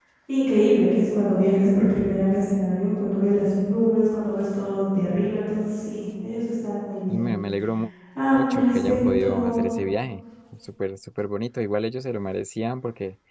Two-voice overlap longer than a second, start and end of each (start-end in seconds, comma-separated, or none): 8.4-9.6